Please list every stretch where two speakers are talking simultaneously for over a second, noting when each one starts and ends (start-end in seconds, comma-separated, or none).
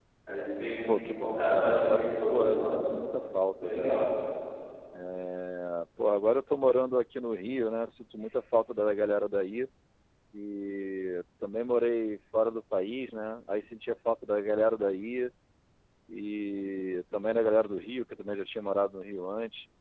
1.0-2.8